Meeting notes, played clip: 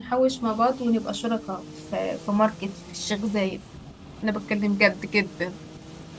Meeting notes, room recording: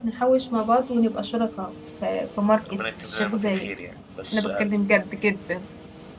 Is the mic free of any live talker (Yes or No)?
No